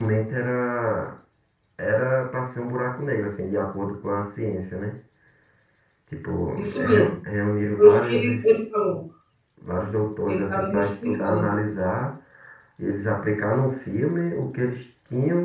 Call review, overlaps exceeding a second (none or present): present